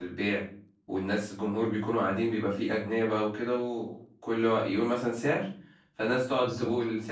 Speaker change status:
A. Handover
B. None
B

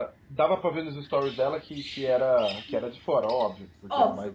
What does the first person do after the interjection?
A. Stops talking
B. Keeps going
A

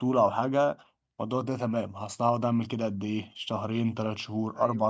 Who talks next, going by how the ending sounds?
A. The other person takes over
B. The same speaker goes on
B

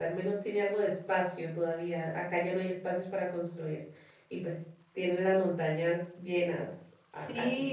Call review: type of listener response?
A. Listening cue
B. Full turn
B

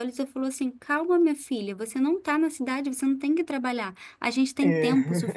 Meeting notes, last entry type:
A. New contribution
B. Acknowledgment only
B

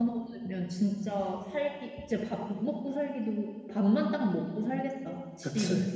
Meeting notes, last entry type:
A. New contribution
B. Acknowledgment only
A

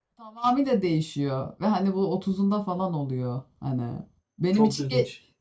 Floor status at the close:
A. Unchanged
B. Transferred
A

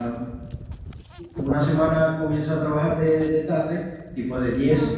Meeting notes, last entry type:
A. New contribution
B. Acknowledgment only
B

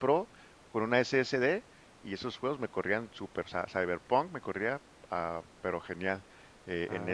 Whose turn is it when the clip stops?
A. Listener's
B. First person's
B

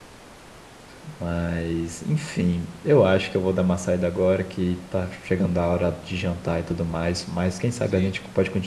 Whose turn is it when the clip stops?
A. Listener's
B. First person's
B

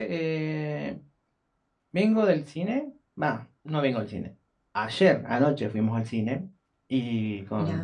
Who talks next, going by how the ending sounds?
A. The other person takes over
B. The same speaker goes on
B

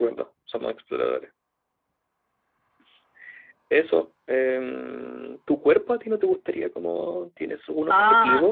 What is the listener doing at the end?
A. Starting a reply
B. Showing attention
A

